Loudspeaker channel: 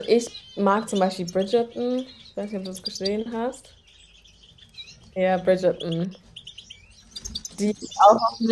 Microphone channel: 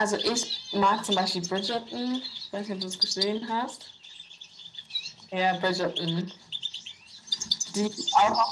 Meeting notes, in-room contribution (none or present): none